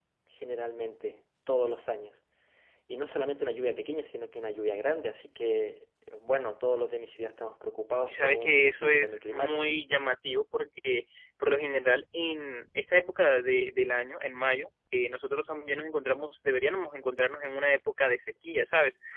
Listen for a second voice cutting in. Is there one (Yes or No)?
Yes